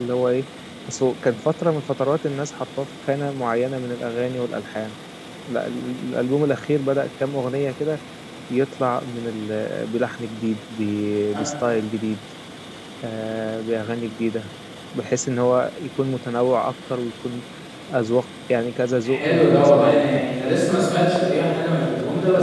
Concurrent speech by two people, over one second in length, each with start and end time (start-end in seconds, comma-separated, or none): 19.0-20.2